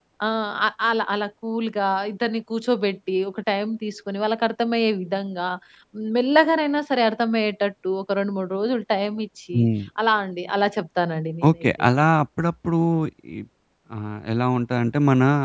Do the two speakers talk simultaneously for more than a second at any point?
No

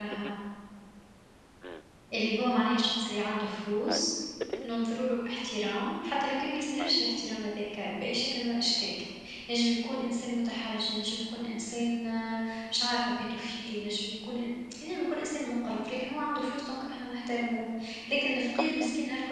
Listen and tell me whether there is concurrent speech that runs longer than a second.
No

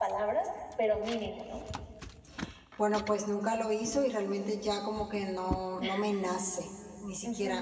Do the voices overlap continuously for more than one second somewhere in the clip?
No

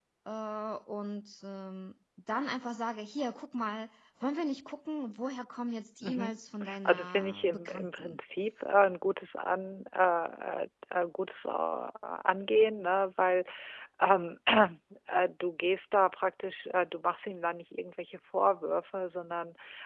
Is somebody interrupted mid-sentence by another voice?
Yes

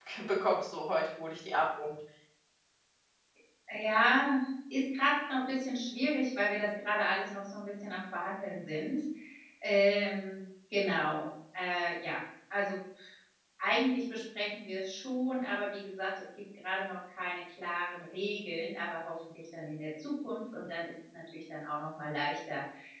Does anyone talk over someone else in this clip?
No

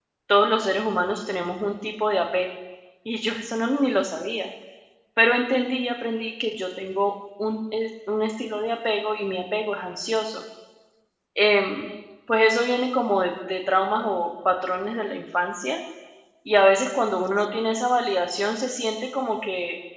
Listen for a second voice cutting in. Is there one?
No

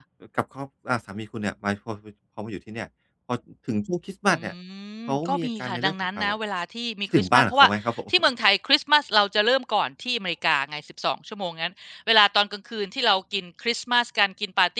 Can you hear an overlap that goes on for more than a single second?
Yes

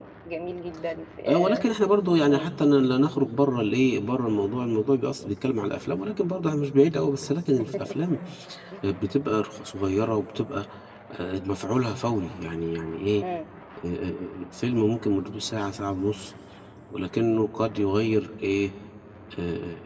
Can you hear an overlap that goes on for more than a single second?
No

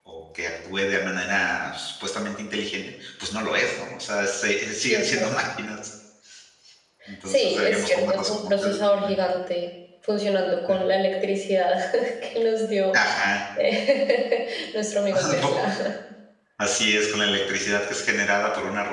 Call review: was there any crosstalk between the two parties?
Yes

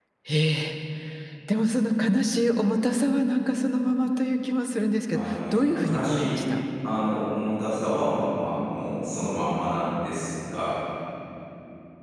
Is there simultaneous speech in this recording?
Yes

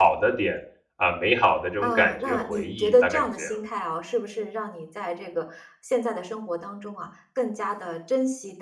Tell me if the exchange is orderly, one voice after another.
No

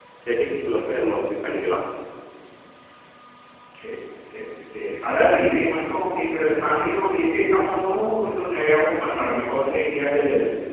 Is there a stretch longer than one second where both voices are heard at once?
No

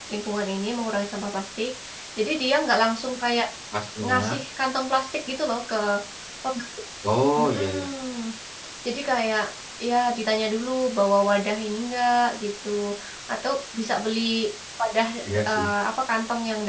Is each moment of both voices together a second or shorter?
Yes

